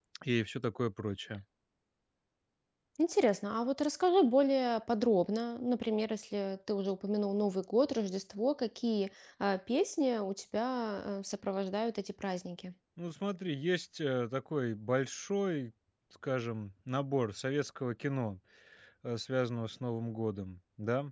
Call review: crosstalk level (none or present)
none